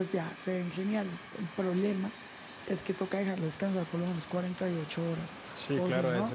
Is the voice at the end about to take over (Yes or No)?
Yes